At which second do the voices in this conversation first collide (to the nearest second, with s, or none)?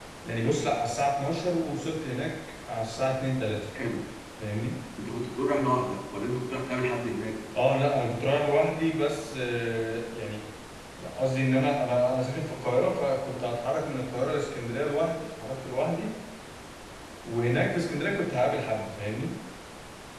none